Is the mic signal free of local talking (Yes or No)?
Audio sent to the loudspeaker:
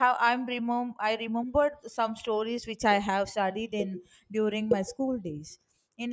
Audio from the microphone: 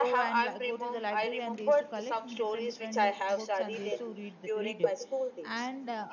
No